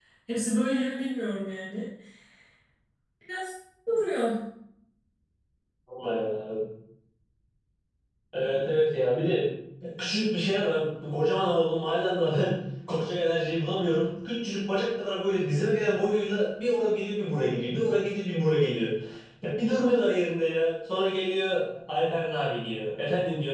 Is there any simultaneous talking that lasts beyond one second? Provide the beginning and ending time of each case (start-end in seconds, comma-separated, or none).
none